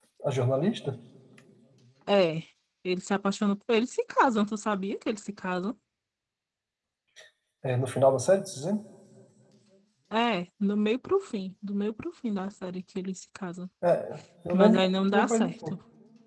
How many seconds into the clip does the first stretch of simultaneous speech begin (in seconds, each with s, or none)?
14.5 s